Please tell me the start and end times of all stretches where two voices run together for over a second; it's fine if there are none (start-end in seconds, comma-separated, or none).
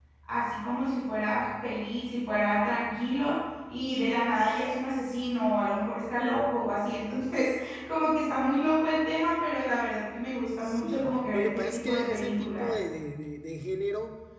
10.6-12.8